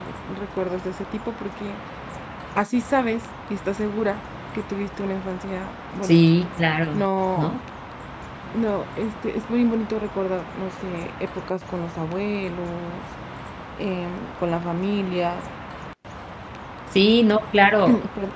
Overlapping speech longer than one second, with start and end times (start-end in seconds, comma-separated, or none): none